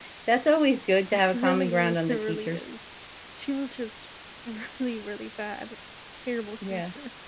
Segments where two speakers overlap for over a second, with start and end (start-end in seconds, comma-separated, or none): 1.1-2.6